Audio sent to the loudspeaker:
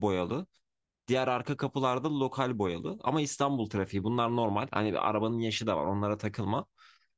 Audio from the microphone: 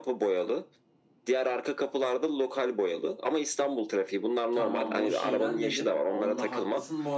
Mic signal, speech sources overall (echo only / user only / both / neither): both